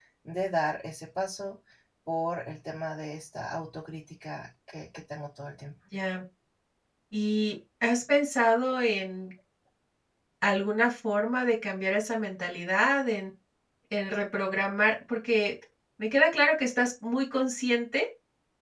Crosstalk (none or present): none